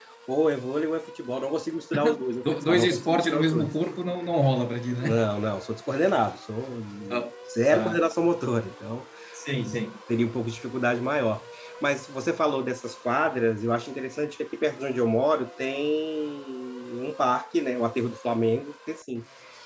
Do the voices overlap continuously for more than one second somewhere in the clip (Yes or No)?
Yes